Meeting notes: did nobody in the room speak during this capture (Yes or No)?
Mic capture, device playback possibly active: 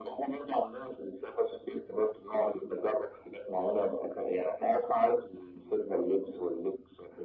Yes